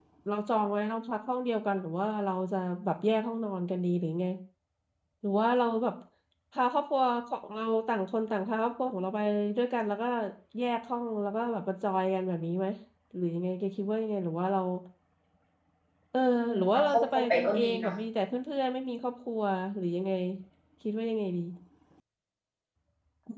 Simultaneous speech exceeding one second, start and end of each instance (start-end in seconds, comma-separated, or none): 16.6-17.9